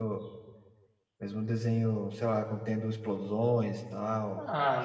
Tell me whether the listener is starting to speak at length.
Yes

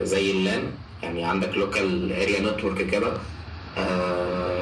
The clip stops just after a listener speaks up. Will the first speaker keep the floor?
Yes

